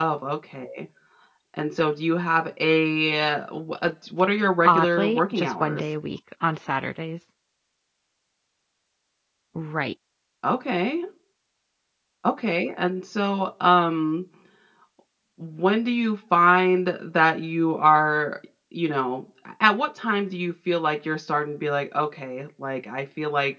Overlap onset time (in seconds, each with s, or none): 4.7 s